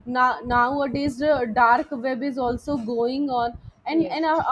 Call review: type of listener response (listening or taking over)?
listening